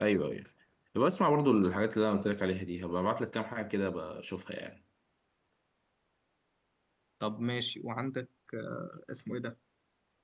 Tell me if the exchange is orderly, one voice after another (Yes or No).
Yes